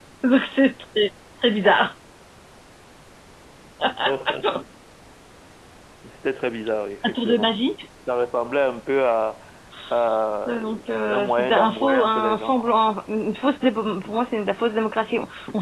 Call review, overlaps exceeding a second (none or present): present